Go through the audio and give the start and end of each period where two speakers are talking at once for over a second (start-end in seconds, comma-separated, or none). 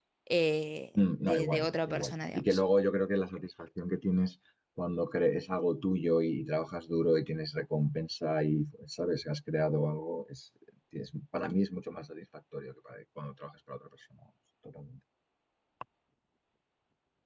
1.2-2.6